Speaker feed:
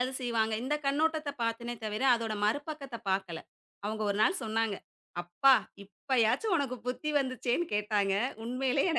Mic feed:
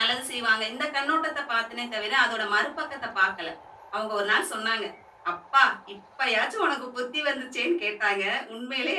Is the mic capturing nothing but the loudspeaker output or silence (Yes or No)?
Yes